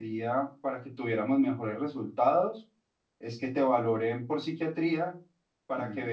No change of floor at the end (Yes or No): Yes